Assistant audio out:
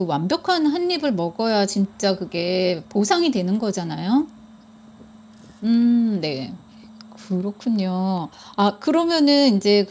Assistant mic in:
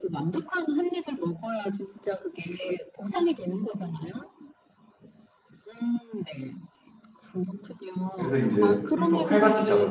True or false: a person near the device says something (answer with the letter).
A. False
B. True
B